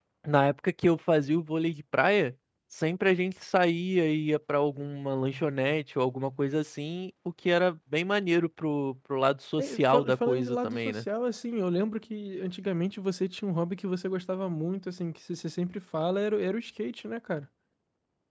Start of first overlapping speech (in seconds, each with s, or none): 9.6 s